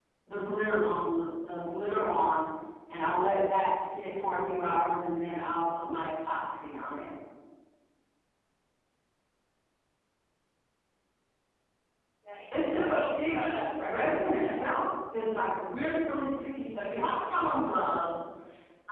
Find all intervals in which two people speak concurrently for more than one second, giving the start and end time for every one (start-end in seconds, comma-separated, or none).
12.5-14.8